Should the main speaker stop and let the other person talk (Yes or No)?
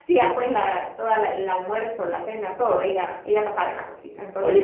Yes